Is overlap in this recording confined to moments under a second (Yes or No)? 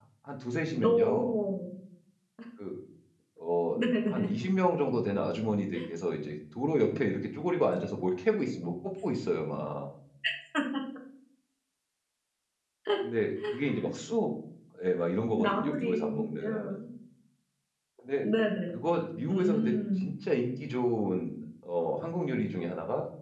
No